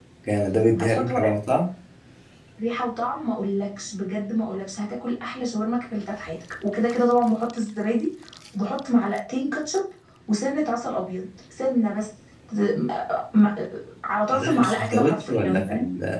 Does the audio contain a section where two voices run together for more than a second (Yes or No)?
Yes